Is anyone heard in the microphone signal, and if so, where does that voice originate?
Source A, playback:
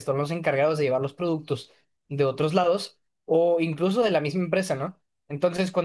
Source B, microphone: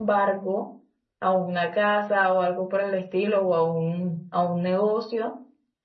user only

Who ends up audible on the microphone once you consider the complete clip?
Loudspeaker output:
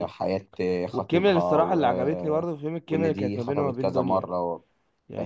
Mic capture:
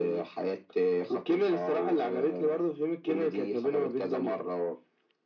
echo only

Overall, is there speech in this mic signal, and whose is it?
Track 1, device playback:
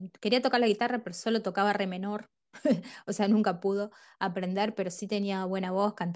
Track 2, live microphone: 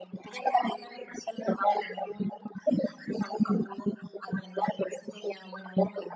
echo only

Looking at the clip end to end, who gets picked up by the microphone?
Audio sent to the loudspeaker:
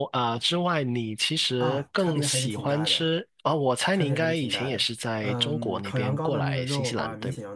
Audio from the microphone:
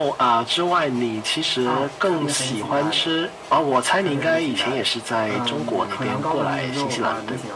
echo only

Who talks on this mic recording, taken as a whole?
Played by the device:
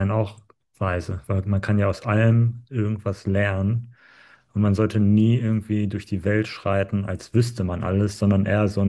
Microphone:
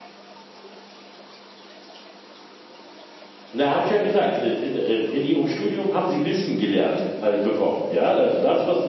user only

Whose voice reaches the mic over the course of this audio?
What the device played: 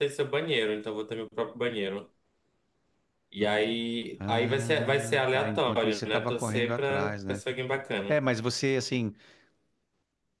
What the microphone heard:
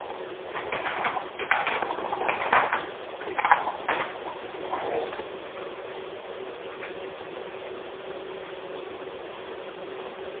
neither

